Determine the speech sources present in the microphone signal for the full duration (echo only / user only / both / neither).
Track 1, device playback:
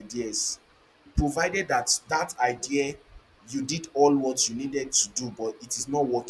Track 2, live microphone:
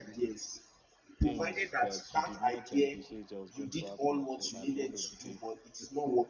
both